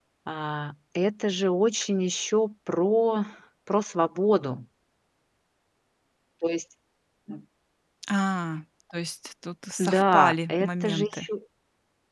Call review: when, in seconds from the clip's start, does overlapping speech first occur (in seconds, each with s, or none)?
9.8 s